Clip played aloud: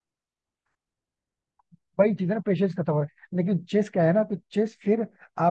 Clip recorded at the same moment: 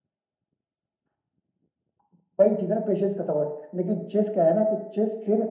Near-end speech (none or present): none